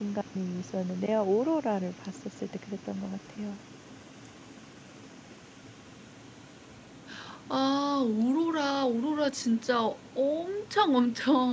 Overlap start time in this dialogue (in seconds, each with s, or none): none